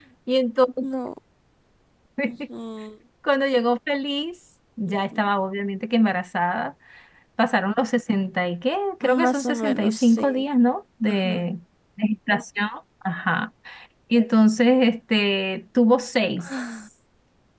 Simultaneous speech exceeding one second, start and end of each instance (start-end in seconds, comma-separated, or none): 9.0-10.4